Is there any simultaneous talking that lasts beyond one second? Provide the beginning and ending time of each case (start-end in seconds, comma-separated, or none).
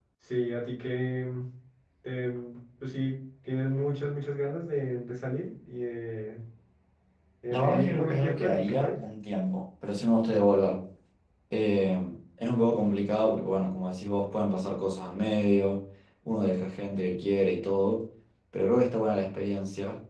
7.5-9.0